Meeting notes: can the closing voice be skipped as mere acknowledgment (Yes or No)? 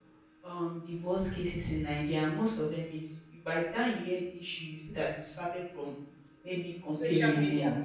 Yes